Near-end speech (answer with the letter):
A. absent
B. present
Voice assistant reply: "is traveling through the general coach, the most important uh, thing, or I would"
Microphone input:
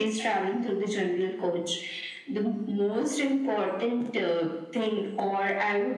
A